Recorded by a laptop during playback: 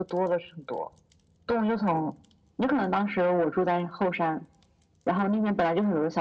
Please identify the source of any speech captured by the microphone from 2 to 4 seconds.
echo only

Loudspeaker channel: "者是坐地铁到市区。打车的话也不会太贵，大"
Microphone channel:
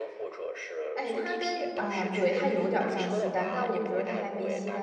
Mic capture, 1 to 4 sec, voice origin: both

